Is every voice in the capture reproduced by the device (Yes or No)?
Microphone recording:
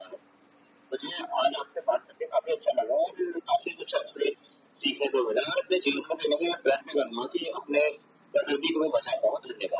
Yes